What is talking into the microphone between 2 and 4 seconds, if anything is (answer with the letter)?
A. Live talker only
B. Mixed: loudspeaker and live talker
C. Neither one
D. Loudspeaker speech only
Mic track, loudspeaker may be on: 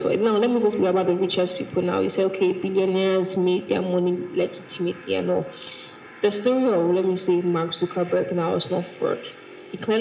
D